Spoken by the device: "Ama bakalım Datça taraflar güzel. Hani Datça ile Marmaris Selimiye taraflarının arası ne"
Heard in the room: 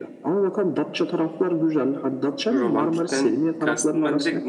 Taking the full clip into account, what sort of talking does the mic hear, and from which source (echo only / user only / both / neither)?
both